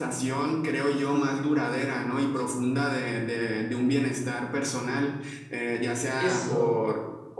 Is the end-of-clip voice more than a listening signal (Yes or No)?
No